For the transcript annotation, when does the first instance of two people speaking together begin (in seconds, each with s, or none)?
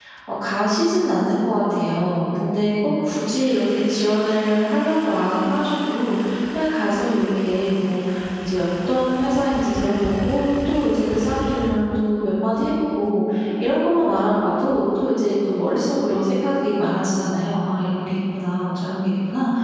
none